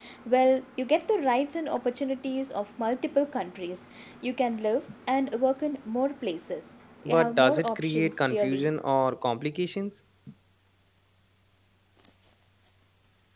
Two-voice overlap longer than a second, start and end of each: 7.0-8.7

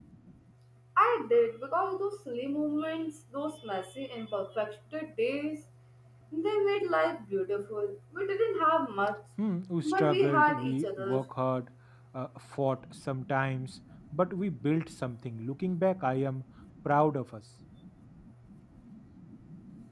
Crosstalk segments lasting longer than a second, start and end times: 9.8-11.2

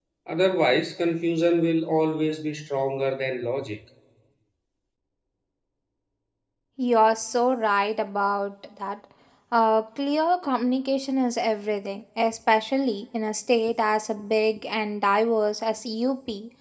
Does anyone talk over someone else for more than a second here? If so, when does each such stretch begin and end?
none

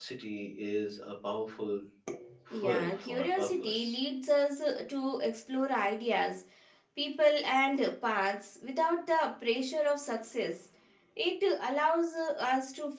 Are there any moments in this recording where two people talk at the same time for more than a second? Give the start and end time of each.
2.5-4.0

